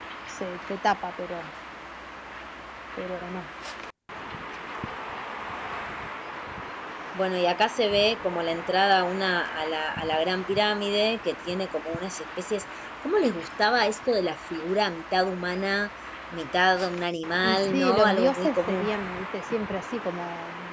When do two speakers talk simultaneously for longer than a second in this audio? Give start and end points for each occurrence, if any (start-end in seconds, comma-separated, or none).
17.4-18.9